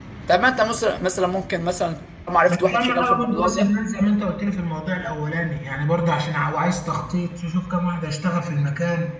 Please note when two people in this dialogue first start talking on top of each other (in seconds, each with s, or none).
2.5 s